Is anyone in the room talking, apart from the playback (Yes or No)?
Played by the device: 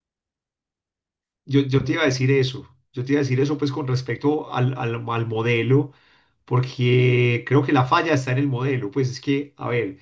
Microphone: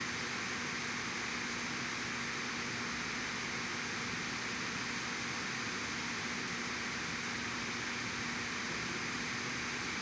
No